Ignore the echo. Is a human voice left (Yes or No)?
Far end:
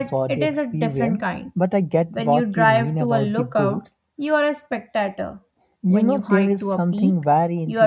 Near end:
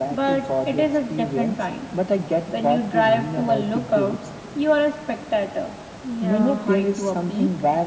Yes